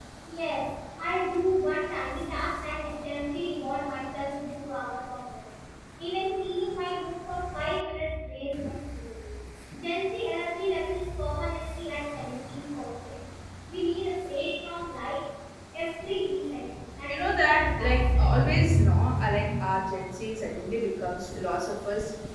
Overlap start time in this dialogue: 17.1 s

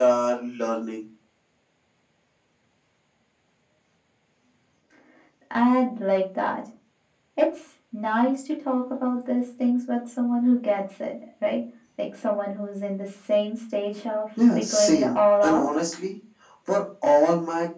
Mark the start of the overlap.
14.4 s

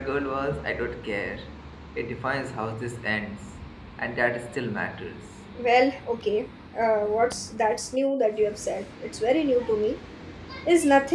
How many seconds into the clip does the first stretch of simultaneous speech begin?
none

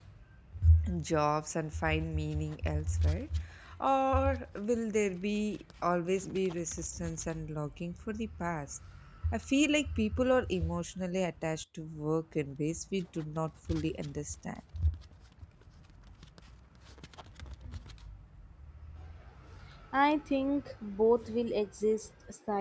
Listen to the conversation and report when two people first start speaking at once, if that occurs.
none

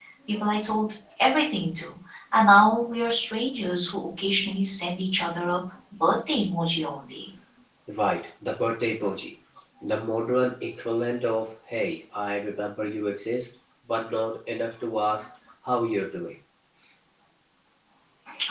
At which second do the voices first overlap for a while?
none

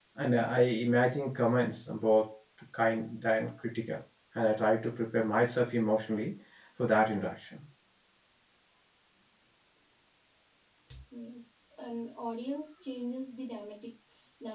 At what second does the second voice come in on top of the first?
none

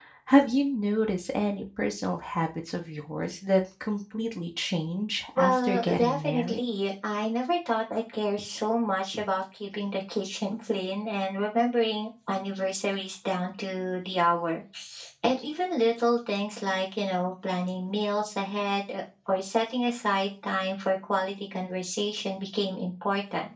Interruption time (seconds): 5.4 s

